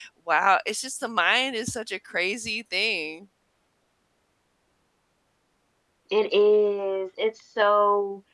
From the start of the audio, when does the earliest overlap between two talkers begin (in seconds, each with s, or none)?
none